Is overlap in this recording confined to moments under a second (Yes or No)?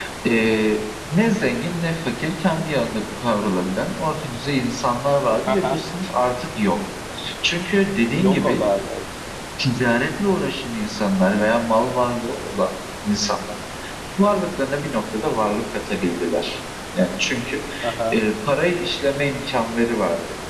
Yes